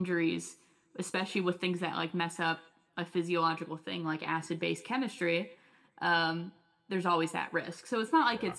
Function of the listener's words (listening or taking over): listening